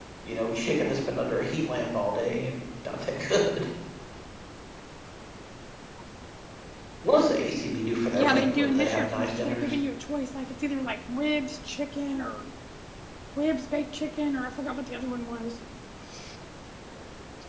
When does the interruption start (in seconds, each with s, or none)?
8.1 s